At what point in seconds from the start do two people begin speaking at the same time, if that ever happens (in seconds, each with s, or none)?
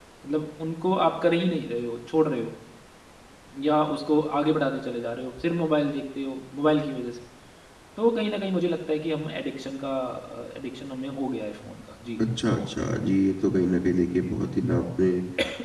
none